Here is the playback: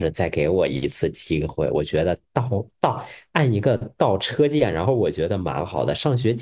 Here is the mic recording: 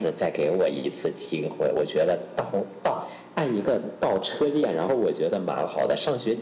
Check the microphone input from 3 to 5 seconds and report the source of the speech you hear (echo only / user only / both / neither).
echo only